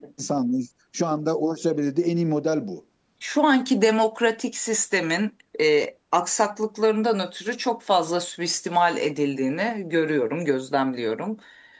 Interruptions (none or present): none